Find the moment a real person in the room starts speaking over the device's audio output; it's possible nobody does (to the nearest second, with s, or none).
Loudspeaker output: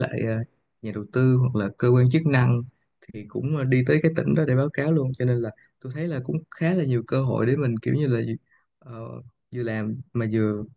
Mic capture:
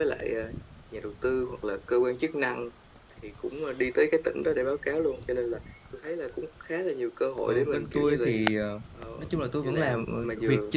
7 s